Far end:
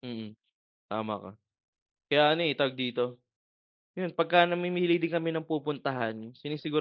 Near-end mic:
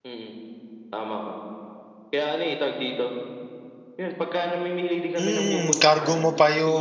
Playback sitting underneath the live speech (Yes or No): Yes